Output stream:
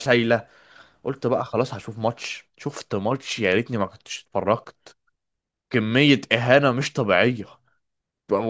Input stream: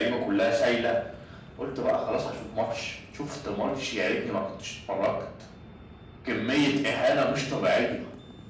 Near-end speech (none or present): none